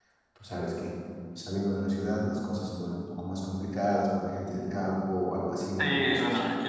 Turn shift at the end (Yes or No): Yes